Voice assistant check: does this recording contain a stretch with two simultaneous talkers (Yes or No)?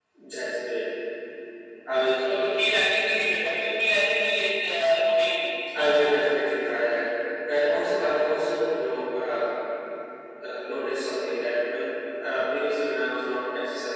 No